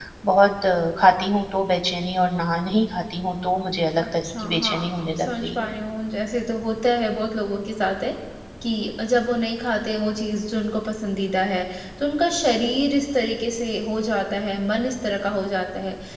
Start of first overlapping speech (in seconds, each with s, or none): 4.0 s